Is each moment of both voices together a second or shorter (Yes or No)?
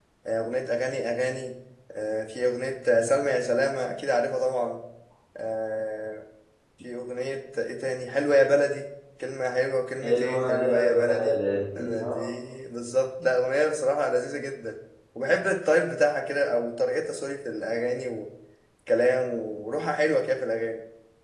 No